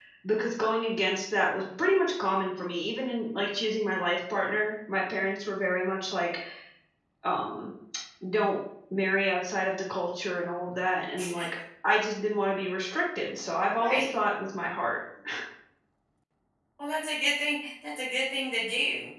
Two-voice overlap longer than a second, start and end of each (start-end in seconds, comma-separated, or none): none